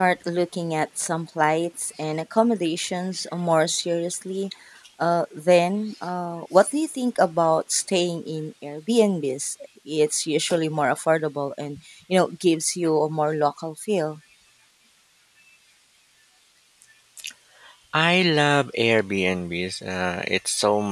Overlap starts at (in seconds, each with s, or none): none